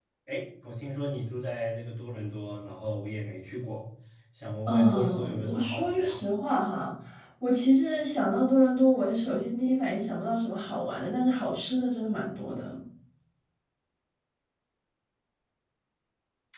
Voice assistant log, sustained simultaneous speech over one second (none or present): present